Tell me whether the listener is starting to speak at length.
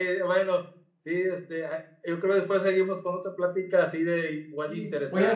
Yes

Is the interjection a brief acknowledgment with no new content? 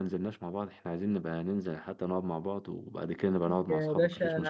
No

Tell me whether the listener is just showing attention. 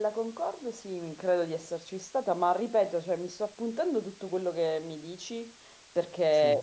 Yes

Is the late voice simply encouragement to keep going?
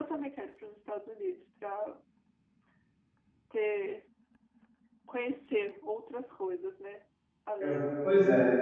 No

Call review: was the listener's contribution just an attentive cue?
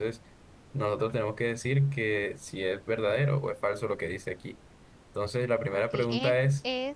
No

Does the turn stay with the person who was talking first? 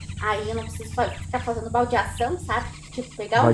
Yes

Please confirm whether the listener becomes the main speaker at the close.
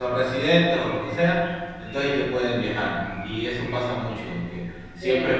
No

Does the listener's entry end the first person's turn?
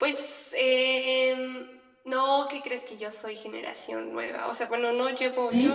No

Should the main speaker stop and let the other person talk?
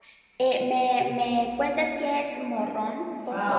Yes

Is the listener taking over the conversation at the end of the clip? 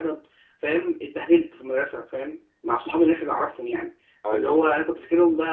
No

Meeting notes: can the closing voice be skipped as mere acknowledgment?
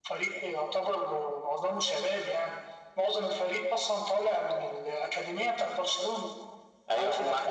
No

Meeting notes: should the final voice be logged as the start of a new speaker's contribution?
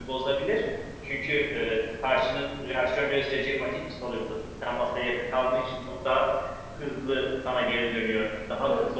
No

